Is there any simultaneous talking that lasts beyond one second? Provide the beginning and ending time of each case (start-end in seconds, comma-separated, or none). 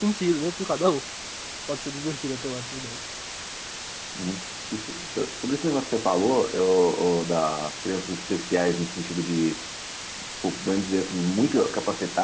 none